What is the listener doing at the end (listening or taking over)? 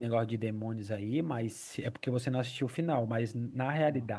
listening